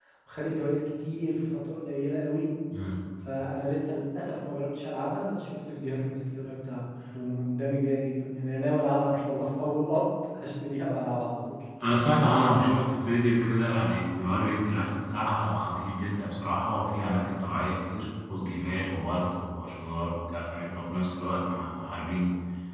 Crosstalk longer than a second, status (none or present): none